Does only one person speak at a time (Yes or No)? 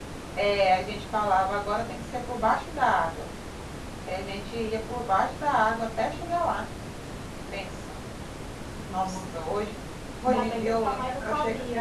No